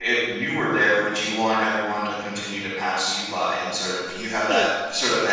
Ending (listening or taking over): listening